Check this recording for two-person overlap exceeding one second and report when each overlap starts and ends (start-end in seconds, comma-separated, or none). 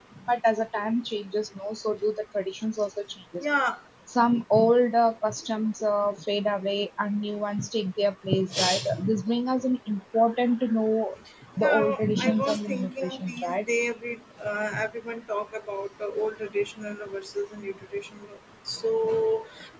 11.6-13.6